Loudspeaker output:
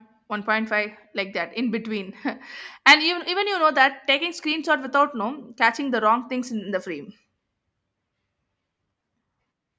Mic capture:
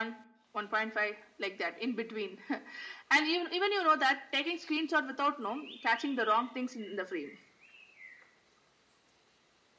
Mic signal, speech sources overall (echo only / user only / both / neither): echo only